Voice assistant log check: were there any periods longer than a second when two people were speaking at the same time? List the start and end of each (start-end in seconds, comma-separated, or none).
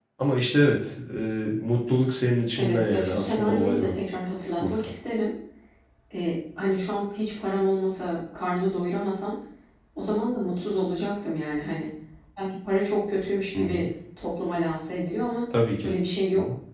2.6-3.9